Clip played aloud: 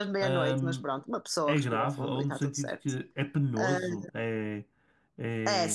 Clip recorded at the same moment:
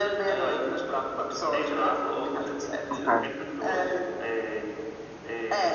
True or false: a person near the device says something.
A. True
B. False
A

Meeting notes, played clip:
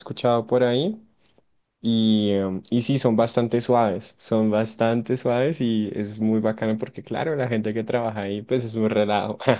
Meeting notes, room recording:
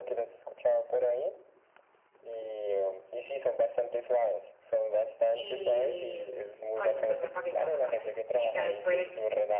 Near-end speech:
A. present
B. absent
A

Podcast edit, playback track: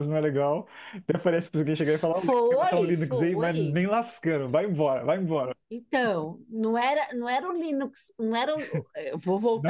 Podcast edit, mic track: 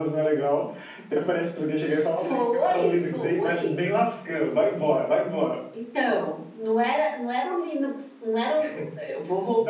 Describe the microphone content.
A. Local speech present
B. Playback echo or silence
B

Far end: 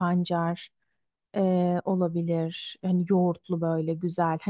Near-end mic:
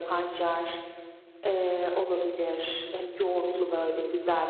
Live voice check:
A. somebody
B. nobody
B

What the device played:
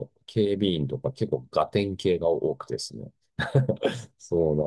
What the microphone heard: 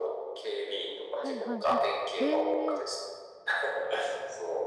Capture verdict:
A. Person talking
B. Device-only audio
A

